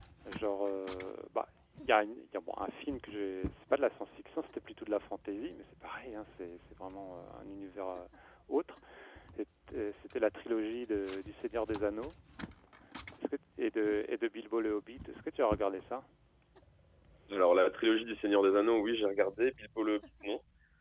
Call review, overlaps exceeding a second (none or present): none